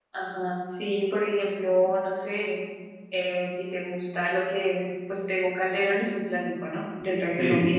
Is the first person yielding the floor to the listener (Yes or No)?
Yes